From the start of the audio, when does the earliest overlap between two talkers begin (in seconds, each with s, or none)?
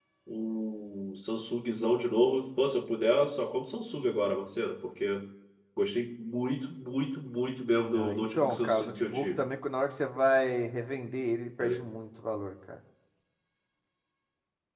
7.8 s